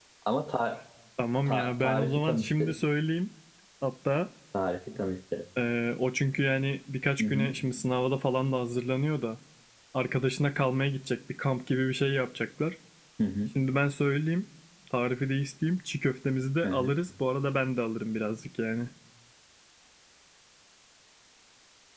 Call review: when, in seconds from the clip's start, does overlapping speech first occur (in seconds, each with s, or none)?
1.5 s